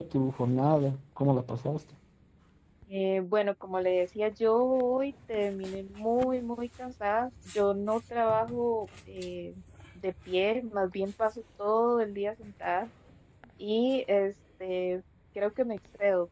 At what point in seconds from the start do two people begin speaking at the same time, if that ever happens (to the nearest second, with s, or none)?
none